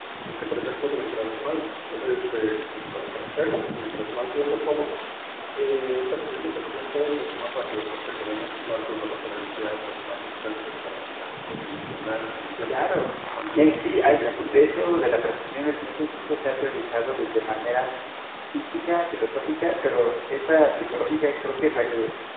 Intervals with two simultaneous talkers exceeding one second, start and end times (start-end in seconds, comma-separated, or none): 13.5-14.8